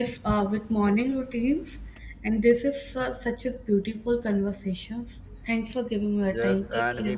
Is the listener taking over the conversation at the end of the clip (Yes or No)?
Yes